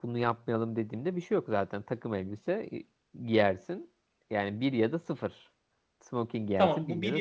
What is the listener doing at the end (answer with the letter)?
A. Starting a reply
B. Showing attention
A